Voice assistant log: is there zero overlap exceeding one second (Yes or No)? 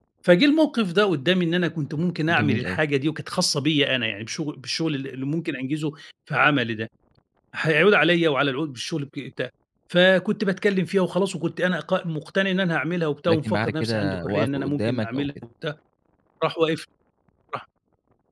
No